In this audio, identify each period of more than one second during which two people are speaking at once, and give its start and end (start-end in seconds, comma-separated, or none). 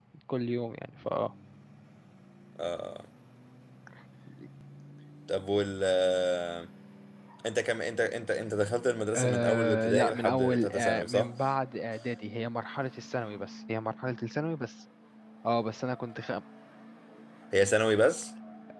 9.2-11.3